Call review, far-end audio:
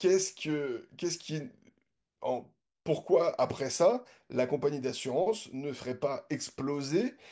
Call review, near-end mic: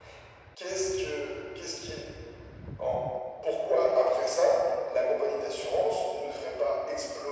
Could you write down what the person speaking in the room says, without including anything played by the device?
none

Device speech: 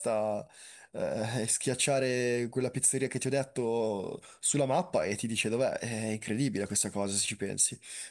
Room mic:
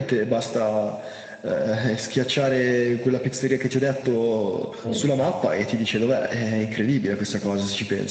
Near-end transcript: sì. eh.

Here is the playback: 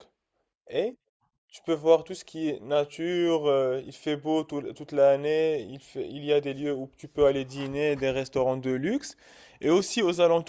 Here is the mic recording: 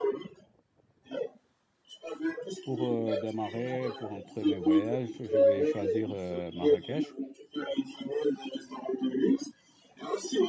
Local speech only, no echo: pour euh, démarrer, pour un premier voyage, je vais choisir euh, Marrakech.

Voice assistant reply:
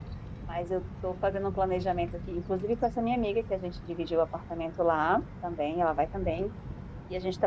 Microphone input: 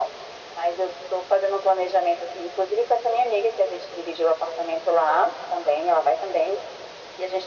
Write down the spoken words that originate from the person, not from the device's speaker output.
none

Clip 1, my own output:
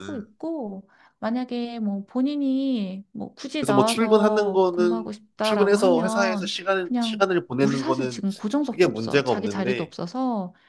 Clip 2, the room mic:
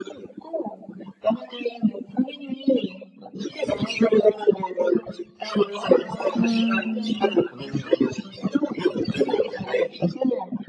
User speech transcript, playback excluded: 음,

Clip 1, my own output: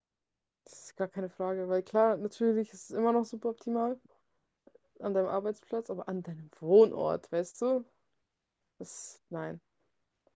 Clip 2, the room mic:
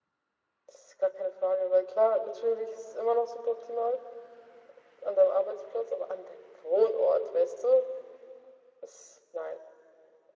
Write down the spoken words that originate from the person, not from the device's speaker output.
none

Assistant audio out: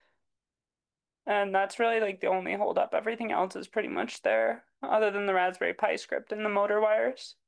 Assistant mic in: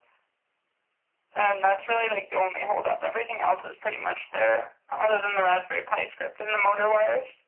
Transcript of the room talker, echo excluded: none

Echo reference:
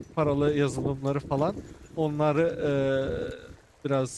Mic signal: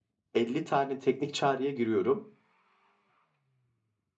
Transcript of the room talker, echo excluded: 50 tane teknik çağrıya giriyorum

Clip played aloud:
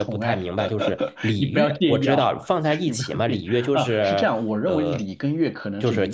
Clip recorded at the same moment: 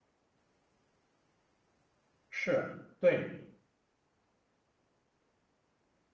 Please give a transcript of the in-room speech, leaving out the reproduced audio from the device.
是，对，

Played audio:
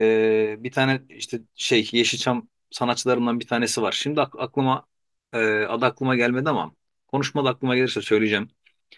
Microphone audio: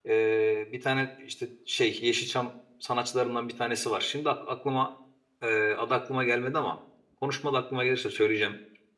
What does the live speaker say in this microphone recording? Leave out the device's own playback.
none

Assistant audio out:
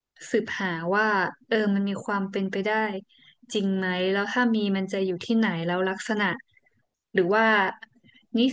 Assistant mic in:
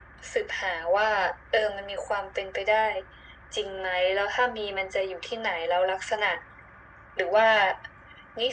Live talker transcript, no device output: none

